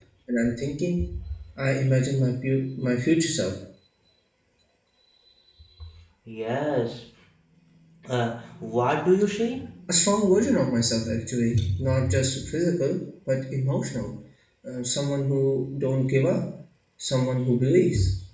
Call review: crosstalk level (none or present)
none